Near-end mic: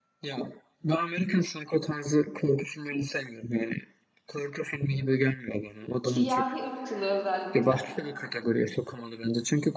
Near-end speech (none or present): present